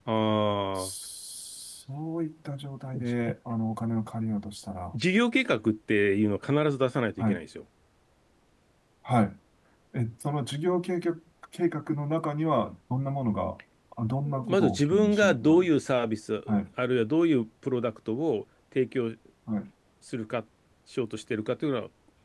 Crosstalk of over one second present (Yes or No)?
Yes